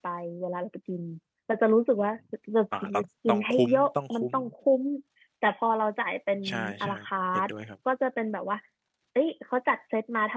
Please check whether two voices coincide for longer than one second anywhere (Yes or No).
Yes